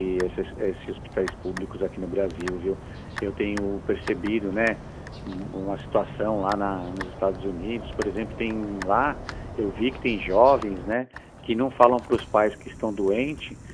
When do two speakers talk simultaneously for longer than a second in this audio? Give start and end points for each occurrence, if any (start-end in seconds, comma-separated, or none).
none